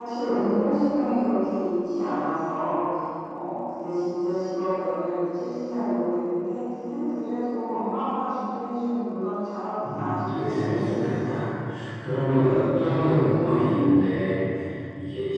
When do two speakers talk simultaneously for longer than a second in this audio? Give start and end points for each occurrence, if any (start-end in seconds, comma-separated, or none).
9.9-11.3